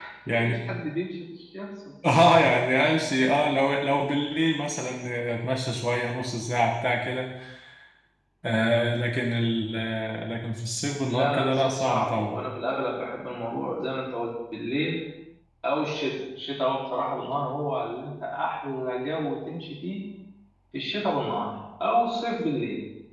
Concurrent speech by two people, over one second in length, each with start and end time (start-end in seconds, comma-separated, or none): 11.1-12.3